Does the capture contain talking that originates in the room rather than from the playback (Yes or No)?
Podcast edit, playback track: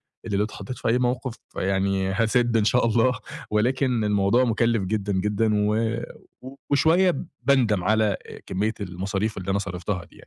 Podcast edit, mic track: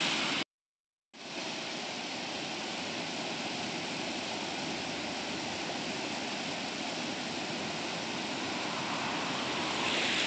No